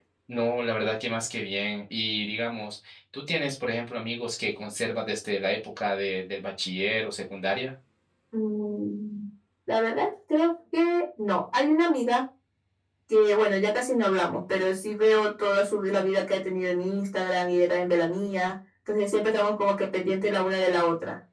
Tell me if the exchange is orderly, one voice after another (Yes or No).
Yes